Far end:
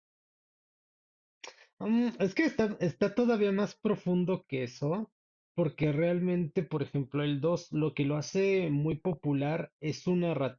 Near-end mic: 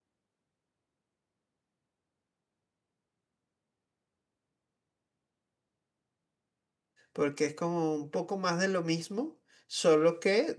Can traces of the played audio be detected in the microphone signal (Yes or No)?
No